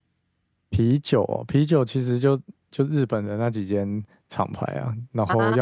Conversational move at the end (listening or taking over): listening